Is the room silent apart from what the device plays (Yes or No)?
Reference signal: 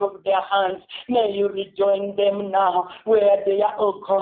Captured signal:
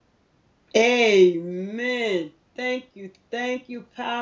No